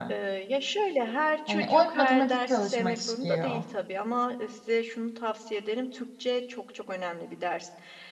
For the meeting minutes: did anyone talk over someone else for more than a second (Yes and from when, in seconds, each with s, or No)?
Yes, from 1.5 s